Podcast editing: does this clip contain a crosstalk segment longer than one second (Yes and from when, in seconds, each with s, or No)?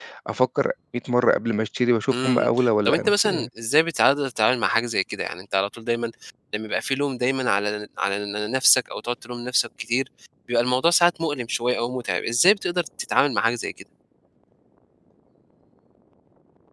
Yes, from 2.1 s